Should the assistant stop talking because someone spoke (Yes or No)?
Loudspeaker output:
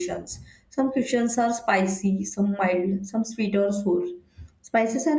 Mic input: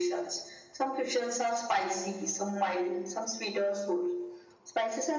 No